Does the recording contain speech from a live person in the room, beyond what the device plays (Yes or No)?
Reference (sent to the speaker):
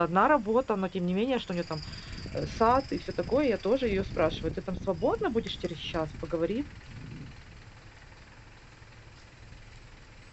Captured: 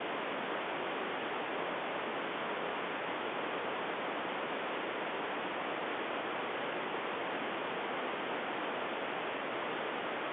No